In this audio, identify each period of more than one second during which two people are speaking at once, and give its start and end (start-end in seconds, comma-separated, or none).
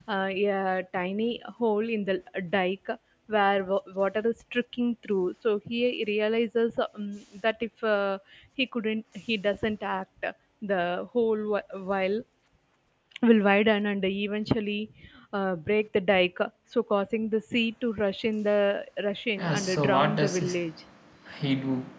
19.4-20.6